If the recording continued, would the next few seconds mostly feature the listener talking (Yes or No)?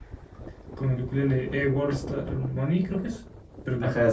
Yes